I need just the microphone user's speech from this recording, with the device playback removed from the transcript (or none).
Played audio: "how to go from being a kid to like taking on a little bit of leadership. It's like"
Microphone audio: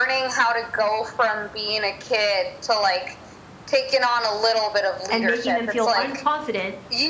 and making them feel unconfident